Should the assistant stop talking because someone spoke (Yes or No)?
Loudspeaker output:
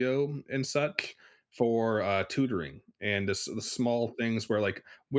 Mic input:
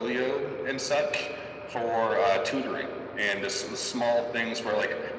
No